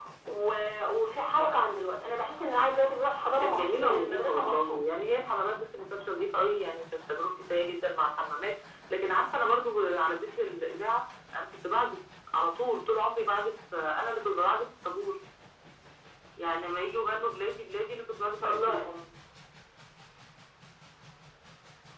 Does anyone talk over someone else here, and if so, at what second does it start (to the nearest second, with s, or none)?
3 s